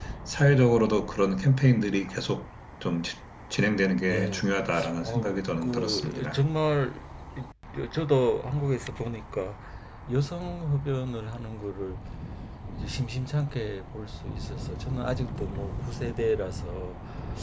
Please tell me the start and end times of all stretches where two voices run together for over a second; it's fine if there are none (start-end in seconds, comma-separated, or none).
5.0-6.4